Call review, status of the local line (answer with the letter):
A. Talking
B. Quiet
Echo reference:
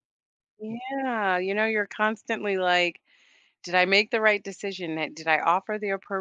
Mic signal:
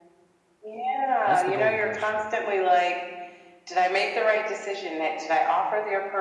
A